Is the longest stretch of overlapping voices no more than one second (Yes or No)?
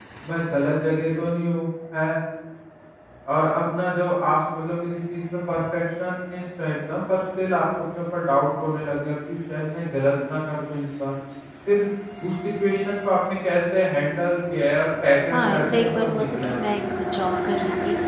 No